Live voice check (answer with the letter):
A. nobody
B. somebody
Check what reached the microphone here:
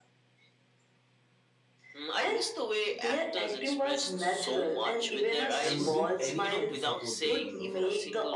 B